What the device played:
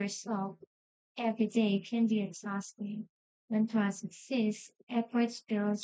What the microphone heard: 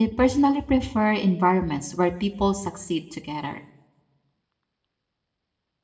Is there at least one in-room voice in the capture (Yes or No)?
Yes